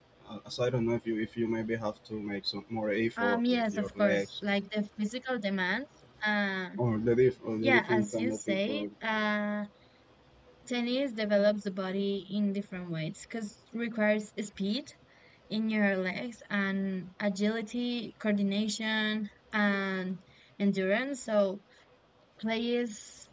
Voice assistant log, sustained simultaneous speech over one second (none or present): present